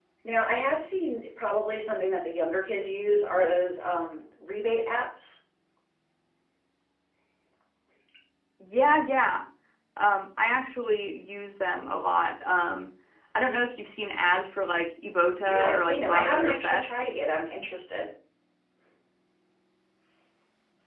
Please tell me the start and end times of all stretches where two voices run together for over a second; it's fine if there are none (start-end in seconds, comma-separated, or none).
15.5-17.0